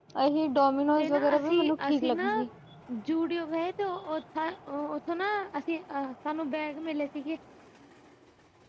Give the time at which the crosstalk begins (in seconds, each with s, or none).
1.0 s